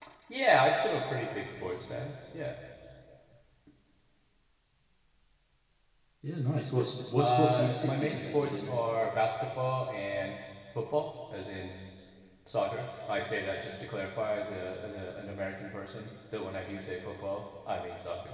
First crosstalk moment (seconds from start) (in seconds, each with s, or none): 7.2 s